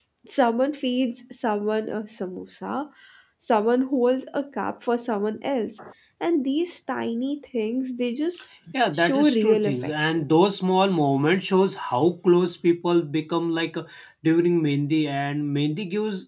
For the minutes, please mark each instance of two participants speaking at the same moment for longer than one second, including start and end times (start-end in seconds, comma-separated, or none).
8.9-10.3